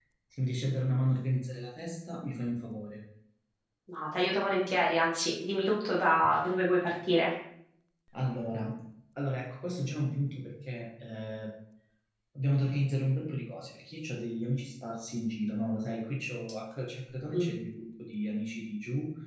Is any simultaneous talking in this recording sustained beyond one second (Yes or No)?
No